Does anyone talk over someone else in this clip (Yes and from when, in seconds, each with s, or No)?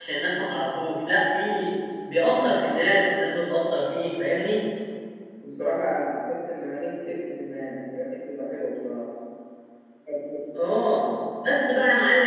No